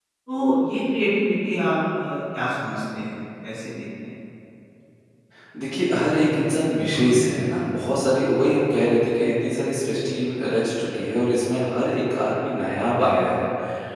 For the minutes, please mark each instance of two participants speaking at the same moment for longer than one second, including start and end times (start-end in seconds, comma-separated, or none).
none